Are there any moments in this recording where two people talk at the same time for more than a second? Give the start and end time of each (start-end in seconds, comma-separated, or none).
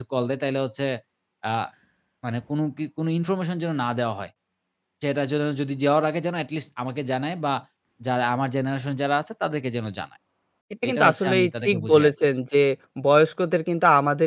10.9-12.1